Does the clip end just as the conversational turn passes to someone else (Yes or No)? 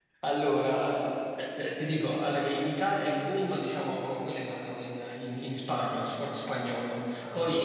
No